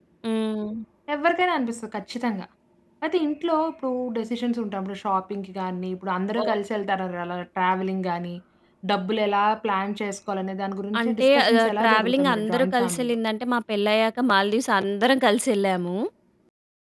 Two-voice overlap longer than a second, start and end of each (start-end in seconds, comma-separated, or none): 11.0-13.2